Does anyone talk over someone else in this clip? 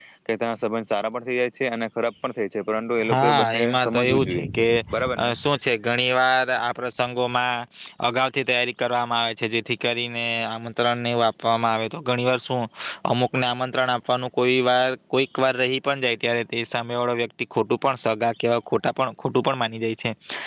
Yes, from 3.1 s

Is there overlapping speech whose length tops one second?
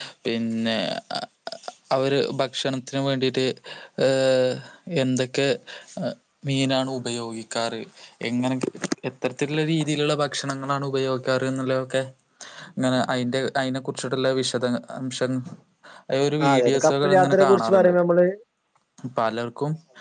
Yes, from 16.4 s

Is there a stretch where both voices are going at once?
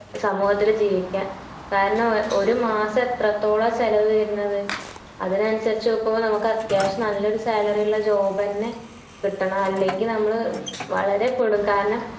No

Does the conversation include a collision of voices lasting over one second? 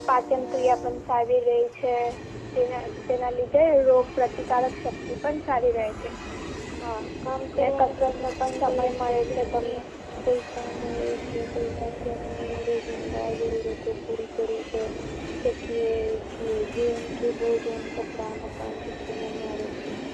Yes, from 7.8 s

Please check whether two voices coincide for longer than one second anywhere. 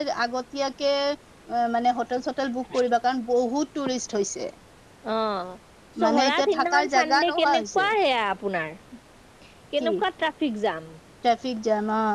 Yes, from 6.0 s

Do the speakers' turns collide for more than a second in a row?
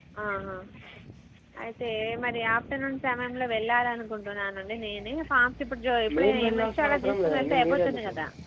Yes, from 6.1 s

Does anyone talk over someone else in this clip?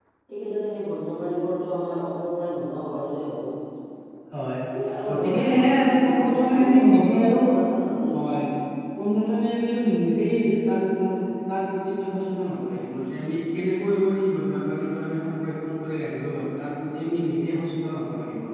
Yes, from 5.0 s

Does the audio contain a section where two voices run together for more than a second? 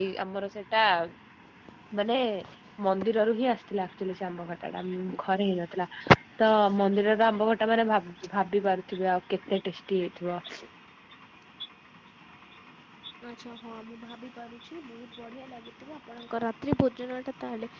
No

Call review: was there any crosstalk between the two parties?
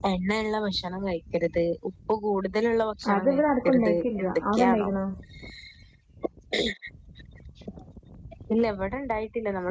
Yes, from 3.0 s

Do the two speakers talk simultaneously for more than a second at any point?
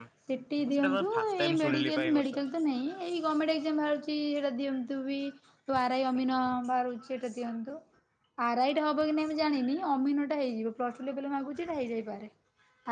Yes, from 0.6 s

